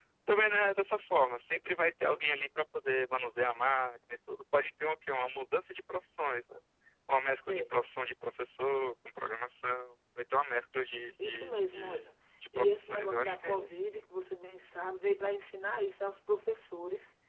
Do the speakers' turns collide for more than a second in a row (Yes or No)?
Yes